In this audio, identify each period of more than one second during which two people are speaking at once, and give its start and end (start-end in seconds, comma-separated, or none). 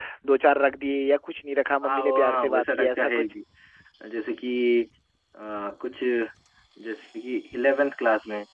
1.9-3.2